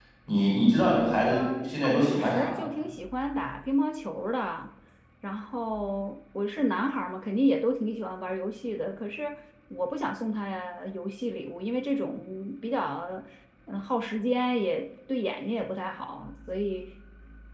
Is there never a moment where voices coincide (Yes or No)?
No